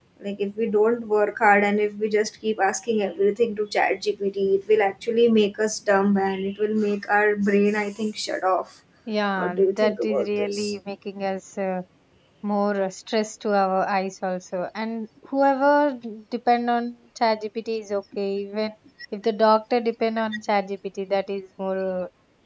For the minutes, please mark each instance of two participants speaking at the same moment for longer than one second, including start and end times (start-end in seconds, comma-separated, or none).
9.4-10.7